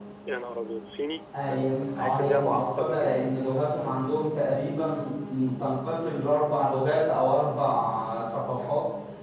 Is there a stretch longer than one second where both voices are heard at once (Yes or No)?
Yes